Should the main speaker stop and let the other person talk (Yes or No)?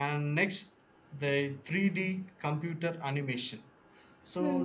No